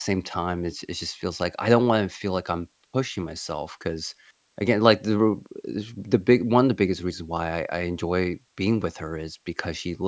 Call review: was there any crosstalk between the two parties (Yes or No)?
No